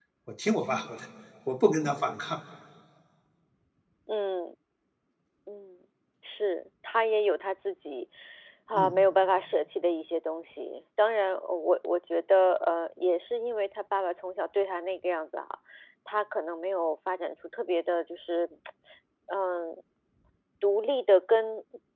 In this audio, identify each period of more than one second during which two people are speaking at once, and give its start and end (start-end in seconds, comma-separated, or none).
none